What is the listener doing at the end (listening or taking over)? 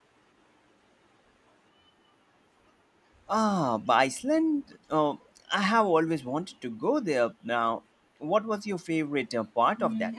taking over